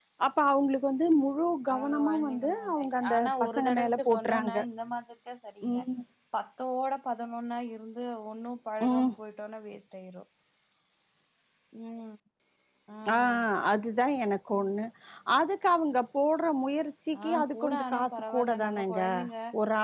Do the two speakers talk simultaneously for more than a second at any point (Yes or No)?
Yes